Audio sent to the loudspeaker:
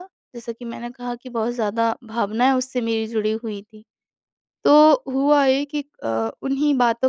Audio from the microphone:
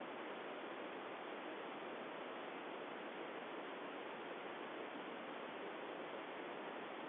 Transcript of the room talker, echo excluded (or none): none